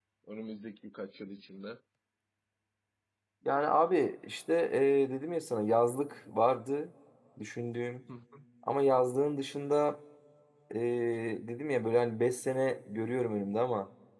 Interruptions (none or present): none